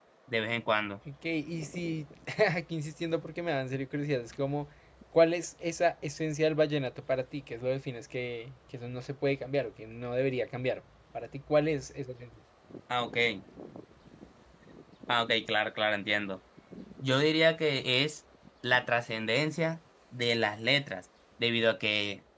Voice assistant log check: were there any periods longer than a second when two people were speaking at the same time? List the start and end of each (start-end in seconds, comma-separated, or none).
none